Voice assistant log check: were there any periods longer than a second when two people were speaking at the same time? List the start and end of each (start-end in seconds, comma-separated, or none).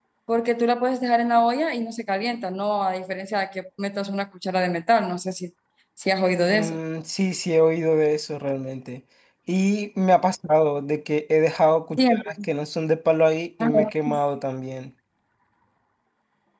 none